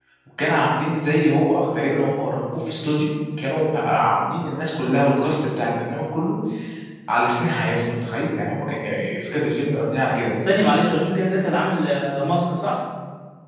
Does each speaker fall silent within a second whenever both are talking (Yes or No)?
Yes